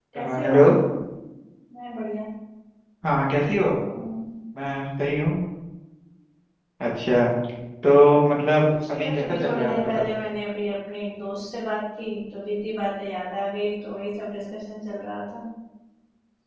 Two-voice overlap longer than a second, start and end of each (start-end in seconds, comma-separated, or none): 8.6-10.0